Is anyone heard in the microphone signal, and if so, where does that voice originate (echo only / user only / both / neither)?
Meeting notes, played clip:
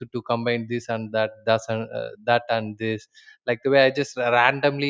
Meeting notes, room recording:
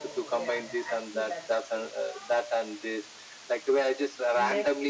both